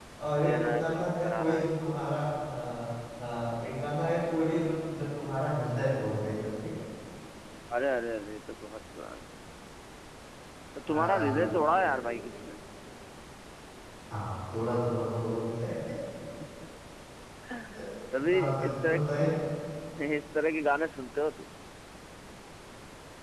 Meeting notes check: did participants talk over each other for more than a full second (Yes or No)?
Yes